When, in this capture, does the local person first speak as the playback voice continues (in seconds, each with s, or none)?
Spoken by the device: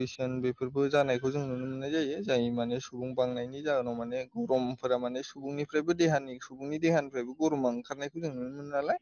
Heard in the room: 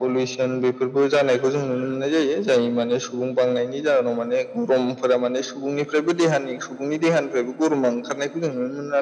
none